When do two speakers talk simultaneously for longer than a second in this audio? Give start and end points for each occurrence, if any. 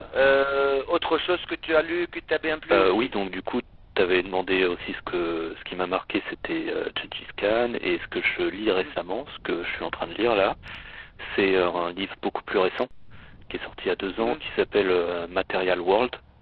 none

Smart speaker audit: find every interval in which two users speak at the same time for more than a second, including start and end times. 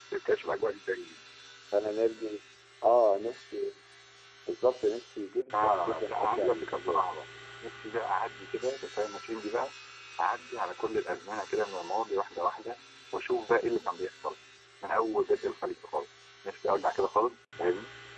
5.5-7.2

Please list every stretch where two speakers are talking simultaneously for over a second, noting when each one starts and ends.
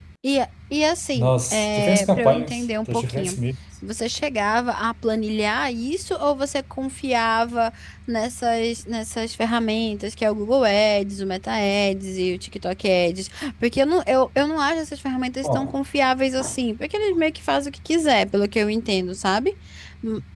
1.1-3.4

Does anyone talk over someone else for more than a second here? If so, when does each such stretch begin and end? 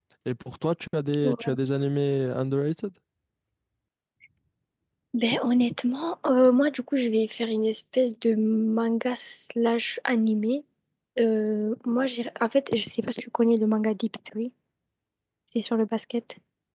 none

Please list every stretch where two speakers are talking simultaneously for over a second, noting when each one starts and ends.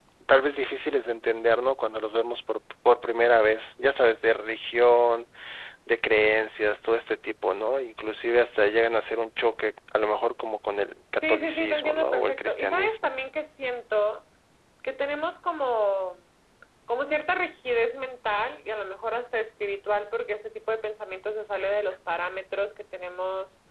11.2-13.1

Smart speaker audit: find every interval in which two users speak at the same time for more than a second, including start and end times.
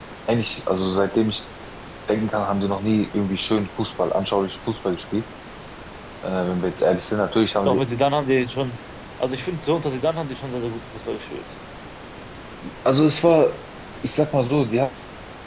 none

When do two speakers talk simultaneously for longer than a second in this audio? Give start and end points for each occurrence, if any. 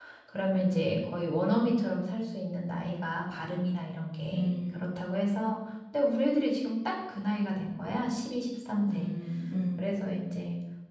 none

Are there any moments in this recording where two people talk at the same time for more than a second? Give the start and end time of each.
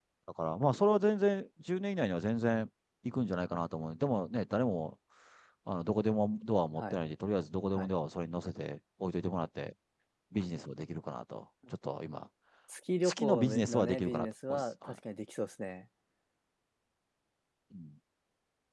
13.0-14.9

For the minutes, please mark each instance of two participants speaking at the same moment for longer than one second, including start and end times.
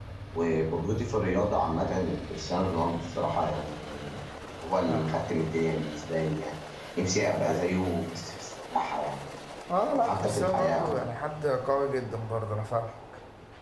9.9-11.1

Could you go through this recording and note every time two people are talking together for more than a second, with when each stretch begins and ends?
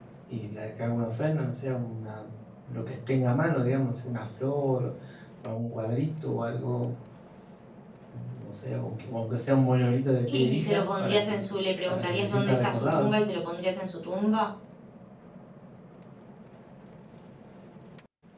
10.3-11.5, 11.9-13.1

